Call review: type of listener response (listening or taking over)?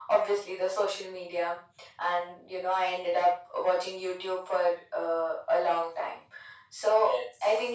listening